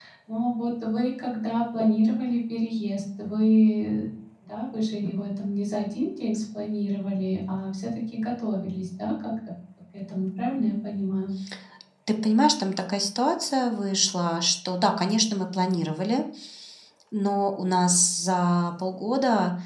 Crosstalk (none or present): none